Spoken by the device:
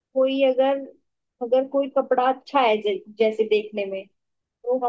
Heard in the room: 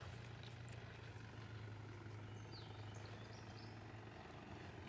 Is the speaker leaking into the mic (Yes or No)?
No